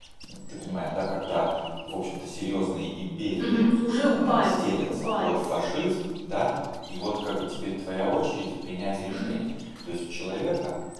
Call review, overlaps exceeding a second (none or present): present